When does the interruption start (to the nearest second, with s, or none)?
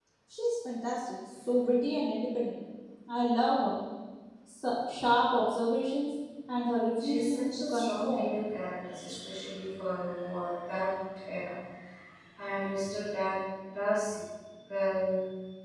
7 s